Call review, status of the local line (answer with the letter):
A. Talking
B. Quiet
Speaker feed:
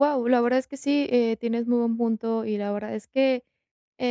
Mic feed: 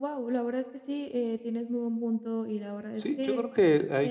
A